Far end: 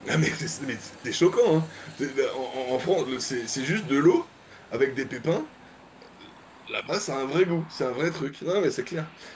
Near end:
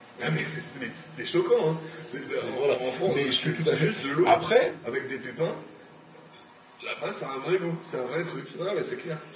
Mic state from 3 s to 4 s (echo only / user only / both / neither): both